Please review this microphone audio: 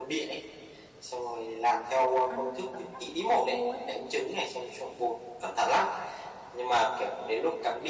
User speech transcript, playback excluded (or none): ăn nó cảm giác nó khô khô ấy